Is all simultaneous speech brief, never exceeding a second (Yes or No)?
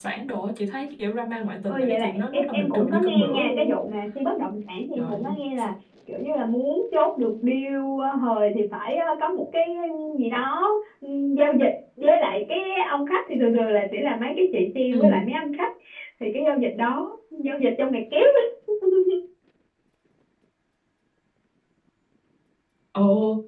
No